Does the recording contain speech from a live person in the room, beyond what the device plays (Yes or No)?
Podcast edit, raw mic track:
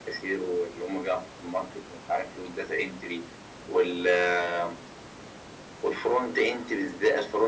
No